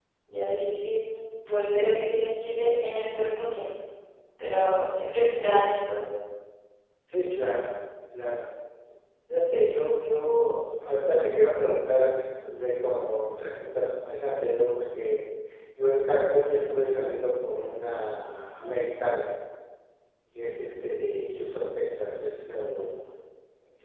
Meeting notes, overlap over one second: none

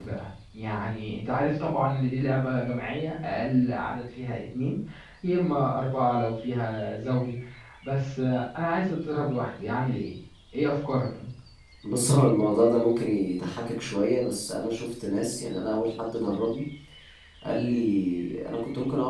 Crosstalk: none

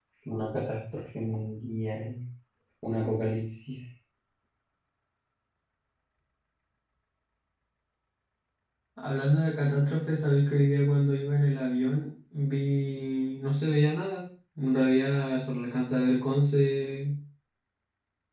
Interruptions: none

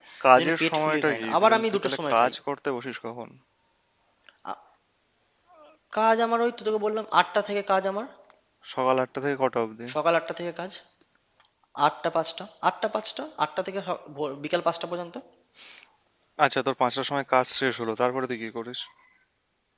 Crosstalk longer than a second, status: present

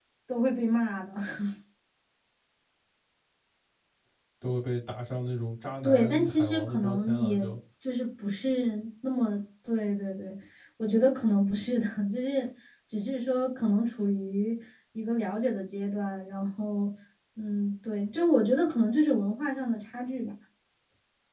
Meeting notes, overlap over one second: present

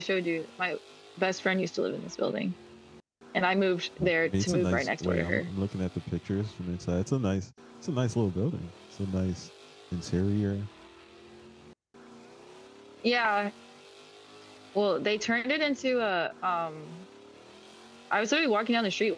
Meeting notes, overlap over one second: present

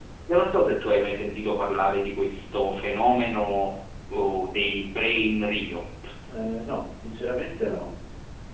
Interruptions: none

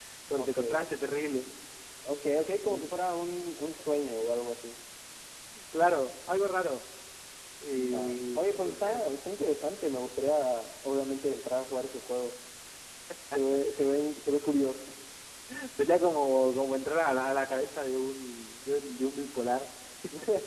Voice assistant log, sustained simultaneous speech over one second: present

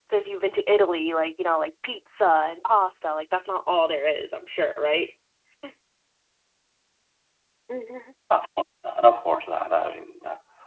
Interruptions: none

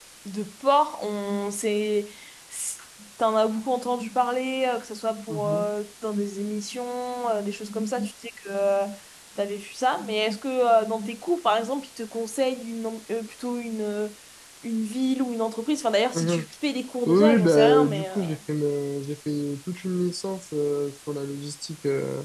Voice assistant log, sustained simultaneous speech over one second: present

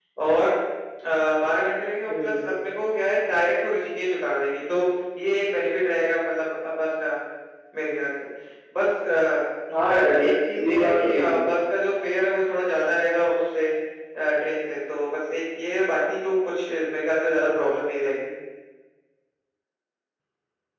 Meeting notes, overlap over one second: present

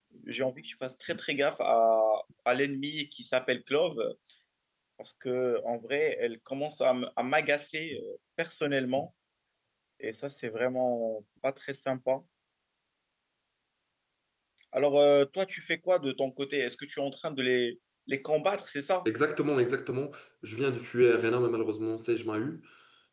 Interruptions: none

